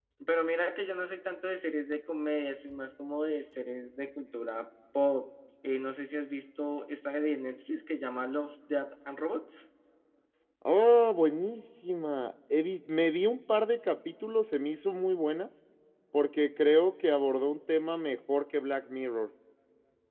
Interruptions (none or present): none